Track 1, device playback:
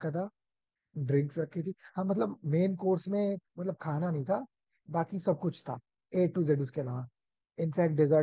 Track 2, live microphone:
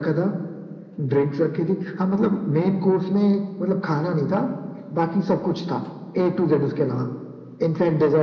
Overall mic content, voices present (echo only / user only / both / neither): echo only